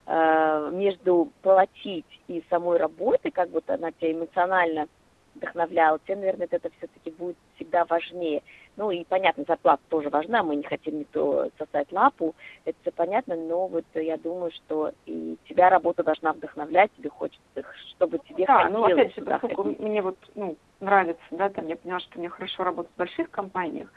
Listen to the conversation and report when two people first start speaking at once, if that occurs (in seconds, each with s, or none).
18.4 s